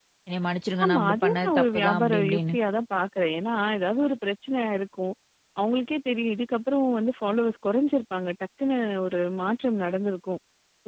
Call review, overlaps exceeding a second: present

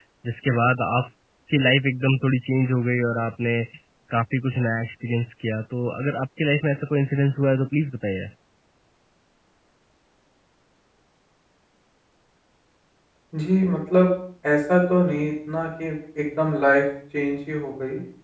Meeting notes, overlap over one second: none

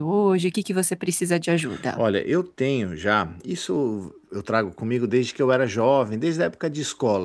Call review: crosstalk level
none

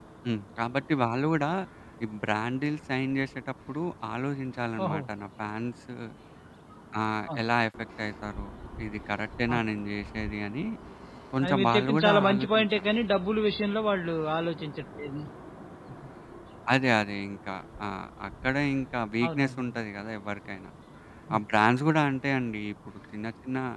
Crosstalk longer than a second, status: present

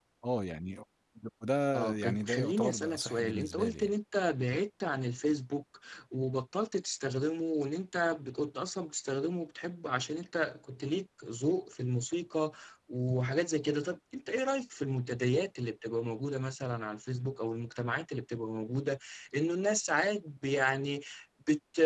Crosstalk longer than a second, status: present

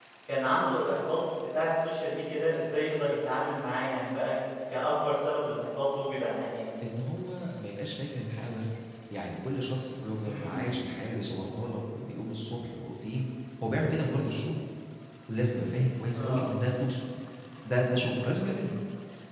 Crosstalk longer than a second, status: none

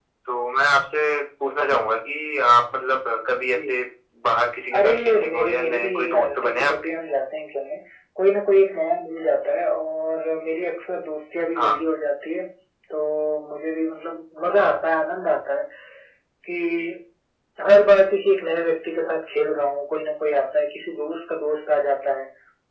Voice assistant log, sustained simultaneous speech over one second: present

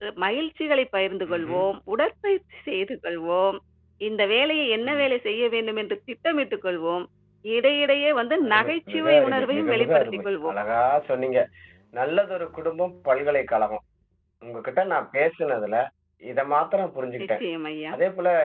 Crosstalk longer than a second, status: present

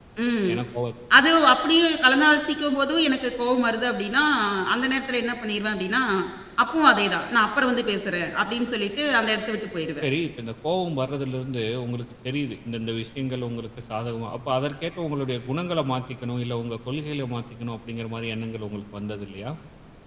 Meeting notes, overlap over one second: none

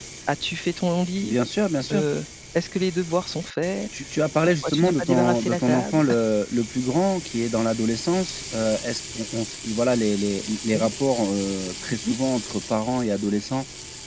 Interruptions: present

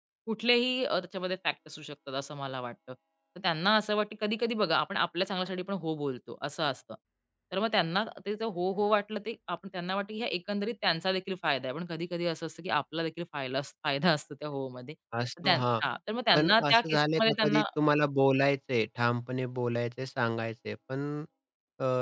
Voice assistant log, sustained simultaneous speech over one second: present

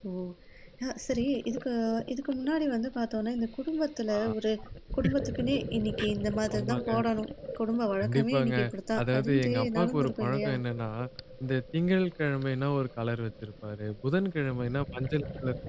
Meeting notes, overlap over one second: present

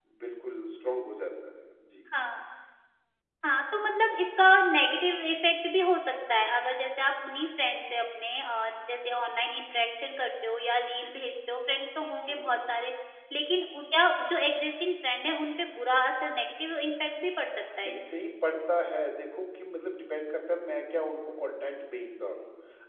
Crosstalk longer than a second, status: none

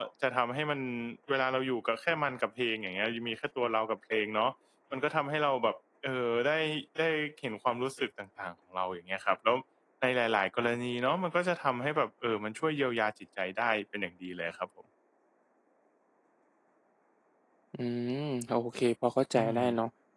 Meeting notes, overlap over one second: none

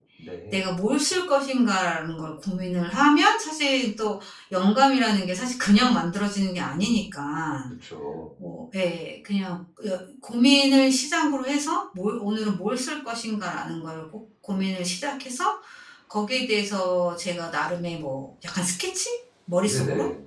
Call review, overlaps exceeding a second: none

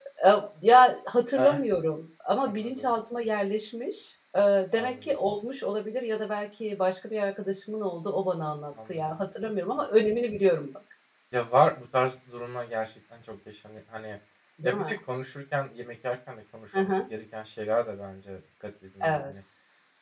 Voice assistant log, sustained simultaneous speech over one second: none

